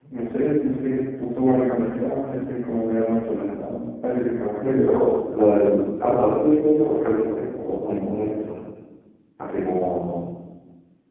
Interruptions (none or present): none